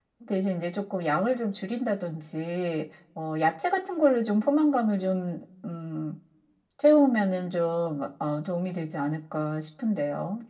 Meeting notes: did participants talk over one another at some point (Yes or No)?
No